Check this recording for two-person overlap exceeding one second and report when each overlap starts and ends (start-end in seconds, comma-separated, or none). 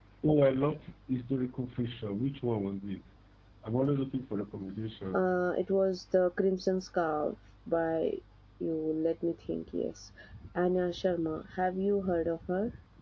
none